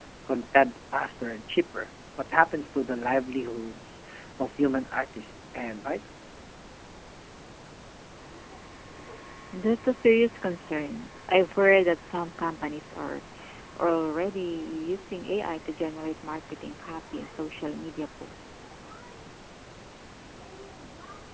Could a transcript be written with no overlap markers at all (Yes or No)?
Yes